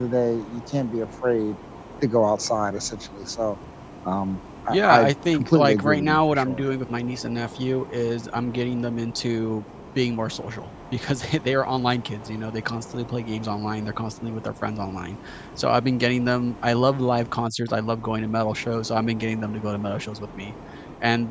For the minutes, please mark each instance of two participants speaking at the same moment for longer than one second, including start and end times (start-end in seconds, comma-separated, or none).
4.7-6.6